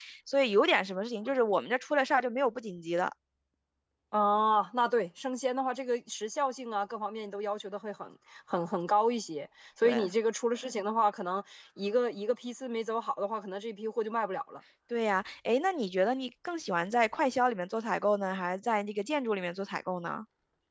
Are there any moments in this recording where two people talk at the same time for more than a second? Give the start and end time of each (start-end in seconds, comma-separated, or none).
none